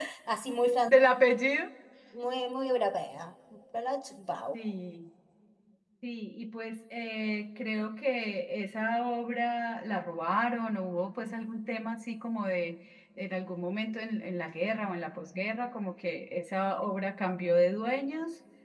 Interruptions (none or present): none